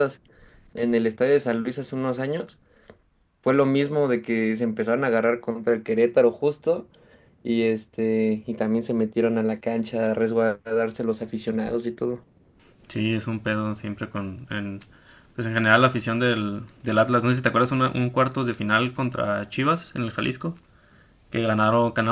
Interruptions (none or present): none